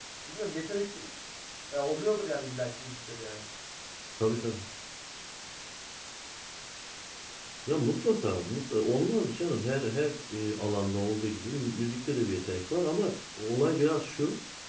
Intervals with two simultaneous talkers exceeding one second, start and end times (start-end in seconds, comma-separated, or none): none